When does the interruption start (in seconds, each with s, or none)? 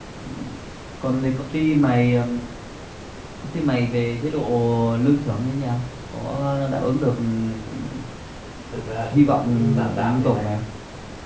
9.1 s